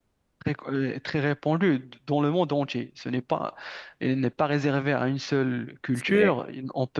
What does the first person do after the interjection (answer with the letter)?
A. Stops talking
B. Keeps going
B